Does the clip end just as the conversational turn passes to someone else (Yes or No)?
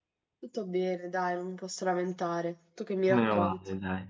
Yes